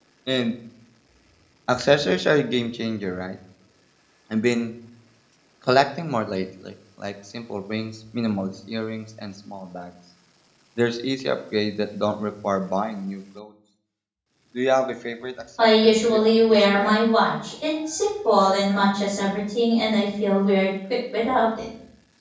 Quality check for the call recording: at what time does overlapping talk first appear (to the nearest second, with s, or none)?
16 s